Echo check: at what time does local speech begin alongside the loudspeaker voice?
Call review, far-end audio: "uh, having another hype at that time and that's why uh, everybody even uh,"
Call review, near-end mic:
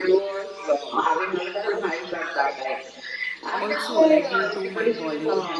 3.5 s

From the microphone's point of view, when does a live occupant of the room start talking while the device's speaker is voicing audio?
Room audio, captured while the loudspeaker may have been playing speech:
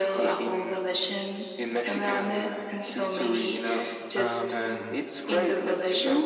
4.1 s

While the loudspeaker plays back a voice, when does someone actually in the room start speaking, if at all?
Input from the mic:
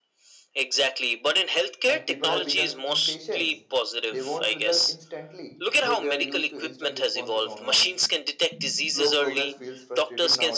1.9 s

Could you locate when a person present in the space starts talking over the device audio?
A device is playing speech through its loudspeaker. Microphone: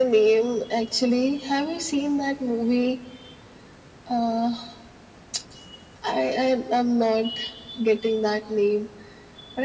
none

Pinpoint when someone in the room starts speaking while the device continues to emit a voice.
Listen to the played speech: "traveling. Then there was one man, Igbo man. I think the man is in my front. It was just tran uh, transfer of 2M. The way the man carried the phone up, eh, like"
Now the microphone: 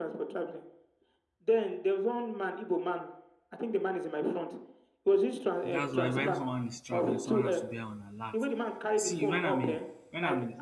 5.6 s

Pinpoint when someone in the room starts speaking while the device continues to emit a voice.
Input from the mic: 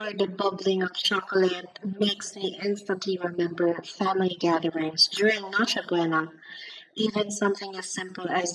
none

